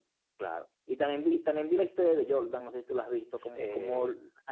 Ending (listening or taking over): listening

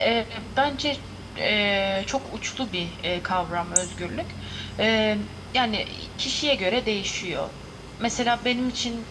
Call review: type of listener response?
listening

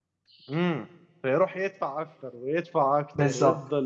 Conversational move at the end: taking over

